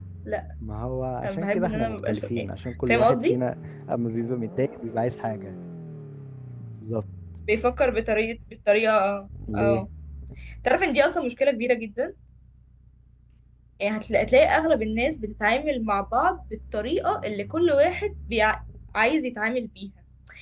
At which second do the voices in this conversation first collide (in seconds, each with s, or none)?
1.2 s